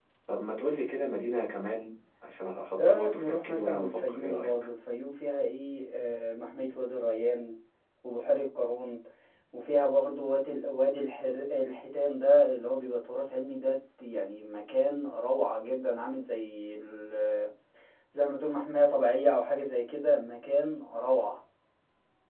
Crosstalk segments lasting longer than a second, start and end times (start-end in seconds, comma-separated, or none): 2.8-4.5